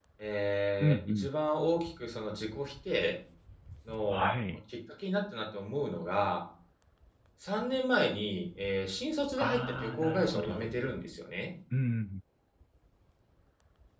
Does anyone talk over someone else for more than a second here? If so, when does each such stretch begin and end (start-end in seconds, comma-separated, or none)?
9.4-10.6